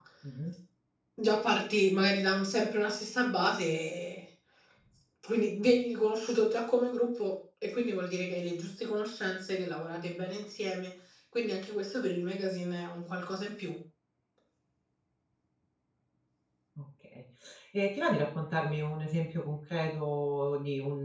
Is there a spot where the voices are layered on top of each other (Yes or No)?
No